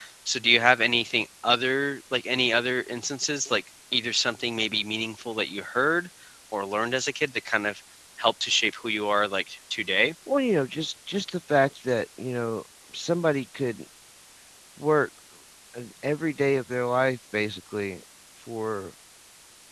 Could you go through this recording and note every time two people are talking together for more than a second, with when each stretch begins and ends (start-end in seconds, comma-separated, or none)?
none